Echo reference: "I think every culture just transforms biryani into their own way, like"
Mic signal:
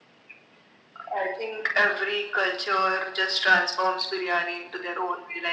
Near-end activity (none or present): none